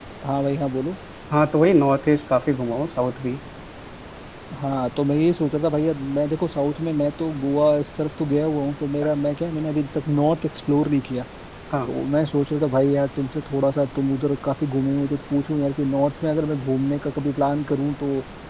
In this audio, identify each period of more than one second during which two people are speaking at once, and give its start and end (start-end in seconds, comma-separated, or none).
none